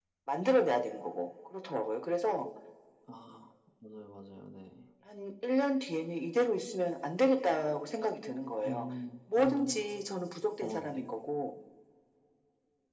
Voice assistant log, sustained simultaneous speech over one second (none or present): none